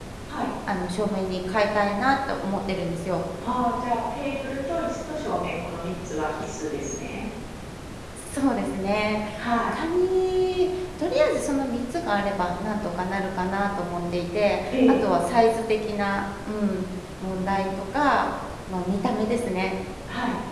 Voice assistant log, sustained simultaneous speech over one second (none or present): none